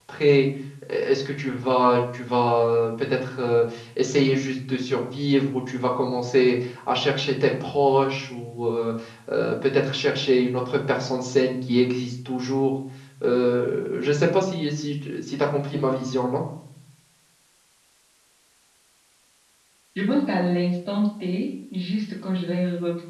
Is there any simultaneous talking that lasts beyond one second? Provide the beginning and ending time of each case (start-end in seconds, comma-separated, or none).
none